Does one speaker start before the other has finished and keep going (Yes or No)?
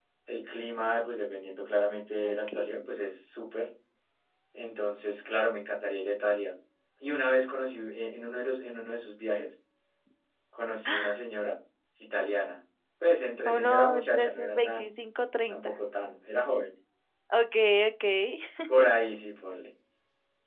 Yes